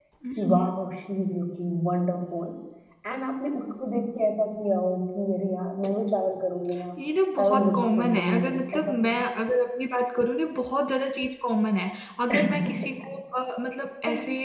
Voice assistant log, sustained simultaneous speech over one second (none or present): present